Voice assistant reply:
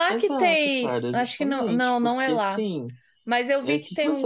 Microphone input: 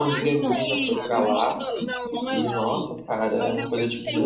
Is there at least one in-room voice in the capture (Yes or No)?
Yes